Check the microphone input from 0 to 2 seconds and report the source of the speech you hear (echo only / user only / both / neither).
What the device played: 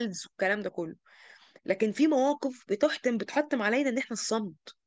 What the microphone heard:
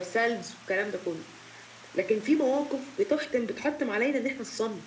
echo only